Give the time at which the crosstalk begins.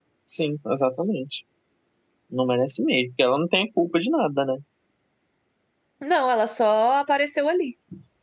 none

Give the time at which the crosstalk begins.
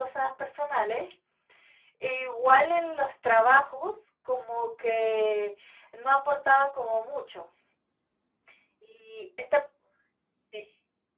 none

